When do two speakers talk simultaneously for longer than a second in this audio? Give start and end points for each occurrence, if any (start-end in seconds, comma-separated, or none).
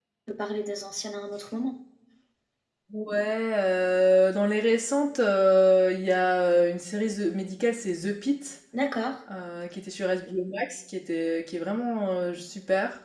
none